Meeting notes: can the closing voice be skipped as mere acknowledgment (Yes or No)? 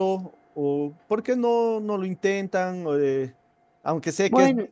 Yes